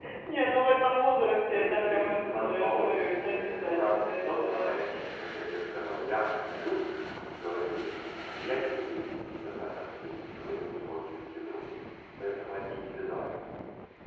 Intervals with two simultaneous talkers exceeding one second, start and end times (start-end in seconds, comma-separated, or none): 1.5-4.8